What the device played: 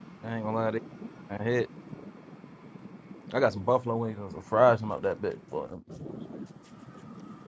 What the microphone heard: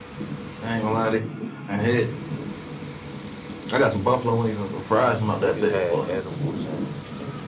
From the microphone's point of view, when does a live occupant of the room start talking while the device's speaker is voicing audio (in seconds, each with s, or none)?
5.4 s